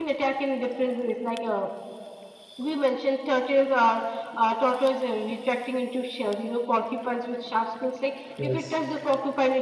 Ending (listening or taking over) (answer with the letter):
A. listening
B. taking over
A